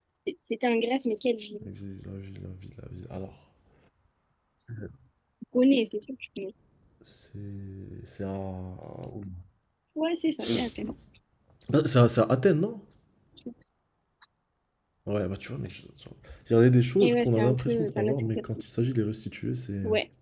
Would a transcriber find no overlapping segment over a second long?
No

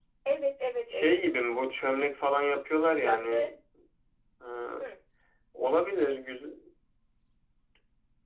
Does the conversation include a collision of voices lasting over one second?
No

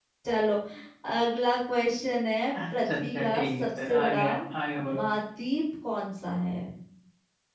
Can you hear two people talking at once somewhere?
Yes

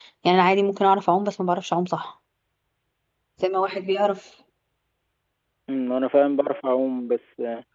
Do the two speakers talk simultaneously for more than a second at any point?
No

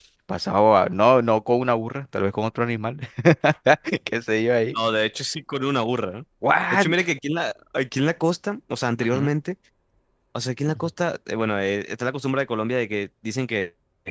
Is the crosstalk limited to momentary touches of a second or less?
Yes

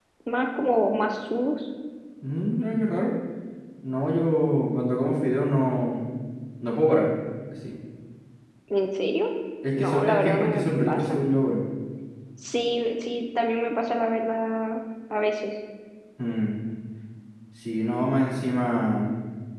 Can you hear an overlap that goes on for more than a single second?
Yes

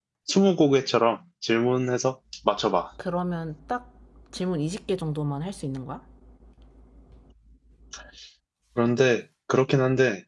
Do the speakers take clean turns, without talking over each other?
Yes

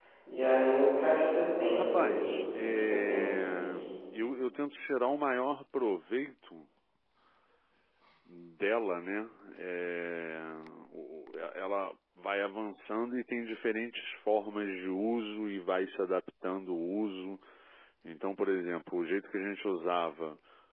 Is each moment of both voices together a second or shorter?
No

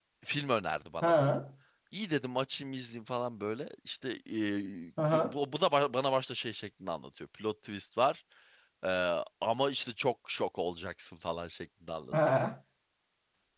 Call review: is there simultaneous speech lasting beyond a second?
No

